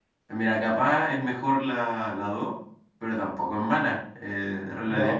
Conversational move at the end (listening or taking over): taking over